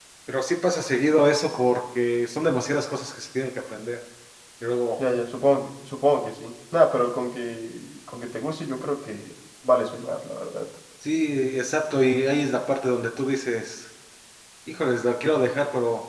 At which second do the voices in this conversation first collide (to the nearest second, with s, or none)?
none